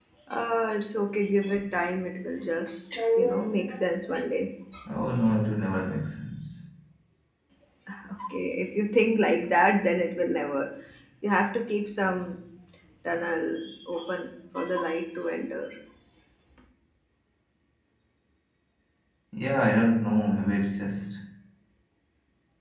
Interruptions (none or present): none